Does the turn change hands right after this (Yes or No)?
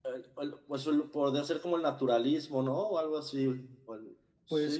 Yes